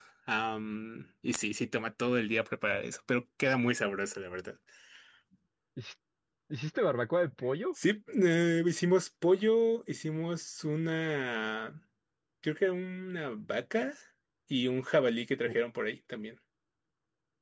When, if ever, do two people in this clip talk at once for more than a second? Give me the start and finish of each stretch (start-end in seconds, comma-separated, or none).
none